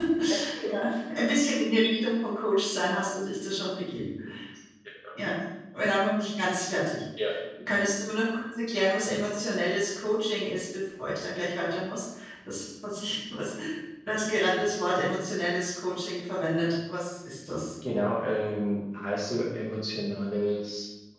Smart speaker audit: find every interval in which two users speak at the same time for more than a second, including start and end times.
none

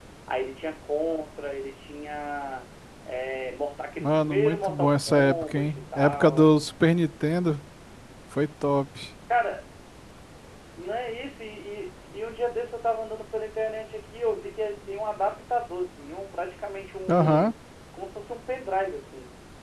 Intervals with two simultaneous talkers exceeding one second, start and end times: 4.0-6.6

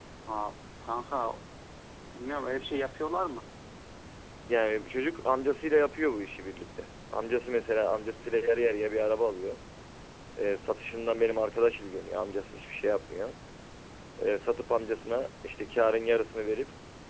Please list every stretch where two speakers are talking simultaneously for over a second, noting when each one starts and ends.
none

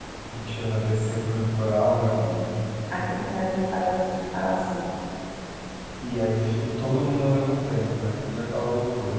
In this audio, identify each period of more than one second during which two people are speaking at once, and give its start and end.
none

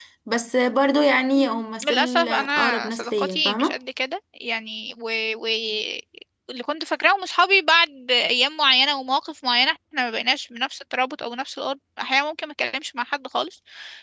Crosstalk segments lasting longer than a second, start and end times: 1.4-3.7

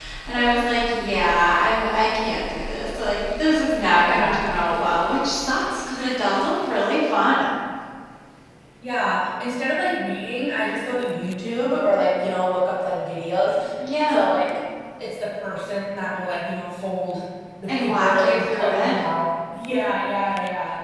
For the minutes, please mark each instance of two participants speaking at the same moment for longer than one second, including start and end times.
17.7-18.9

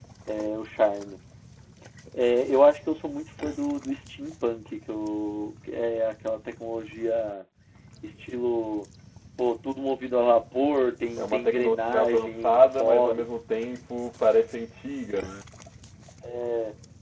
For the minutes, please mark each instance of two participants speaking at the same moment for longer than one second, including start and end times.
11.2-13.2

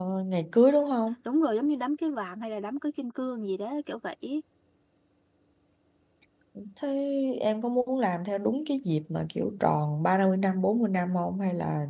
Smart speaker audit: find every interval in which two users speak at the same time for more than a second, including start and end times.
none

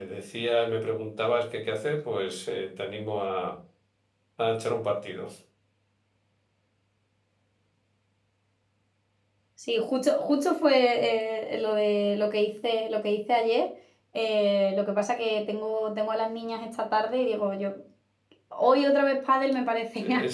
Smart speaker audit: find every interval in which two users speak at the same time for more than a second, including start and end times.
none

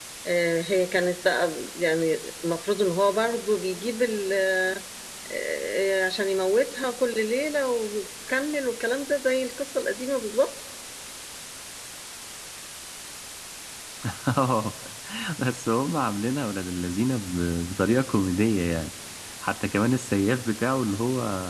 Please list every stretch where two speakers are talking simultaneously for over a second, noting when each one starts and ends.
none

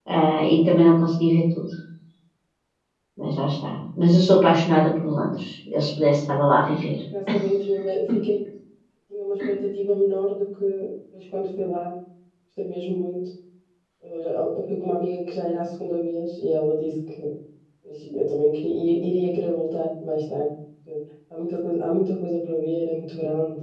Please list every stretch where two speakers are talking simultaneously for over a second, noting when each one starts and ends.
none

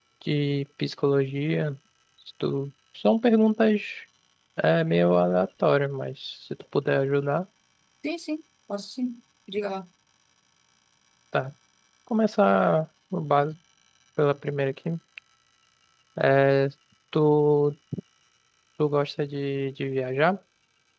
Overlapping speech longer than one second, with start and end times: none

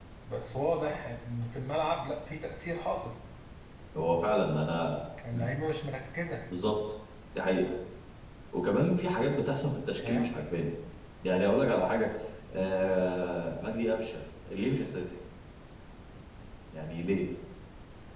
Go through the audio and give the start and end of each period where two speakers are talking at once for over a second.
none

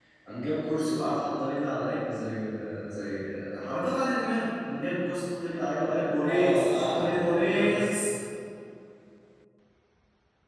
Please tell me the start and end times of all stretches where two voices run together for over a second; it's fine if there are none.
6.3-7.9

